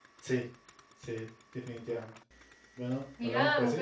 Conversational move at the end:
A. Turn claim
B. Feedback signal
A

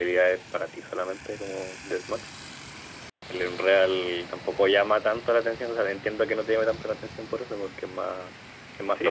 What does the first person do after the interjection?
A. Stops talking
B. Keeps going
A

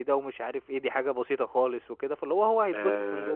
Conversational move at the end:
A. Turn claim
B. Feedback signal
A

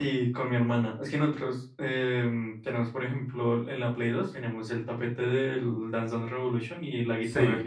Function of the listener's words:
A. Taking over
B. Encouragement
A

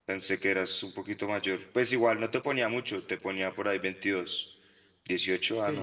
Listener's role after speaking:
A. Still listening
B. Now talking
B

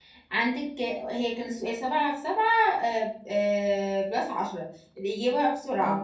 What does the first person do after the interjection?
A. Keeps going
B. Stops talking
A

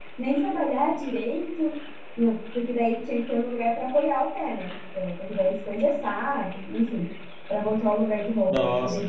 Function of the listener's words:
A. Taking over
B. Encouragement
A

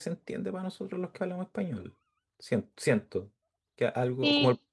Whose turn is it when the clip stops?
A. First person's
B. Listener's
A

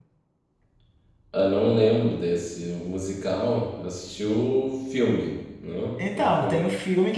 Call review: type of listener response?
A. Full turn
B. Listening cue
A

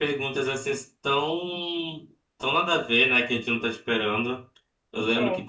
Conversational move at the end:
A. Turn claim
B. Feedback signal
B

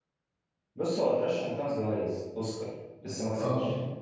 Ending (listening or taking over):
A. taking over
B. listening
A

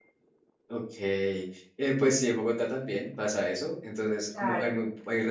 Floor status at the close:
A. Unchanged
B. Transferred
A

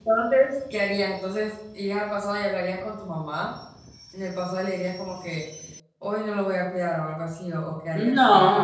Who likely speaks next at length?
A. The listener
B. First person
A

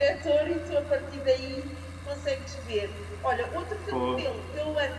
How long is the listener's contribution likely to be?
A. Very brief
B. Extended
A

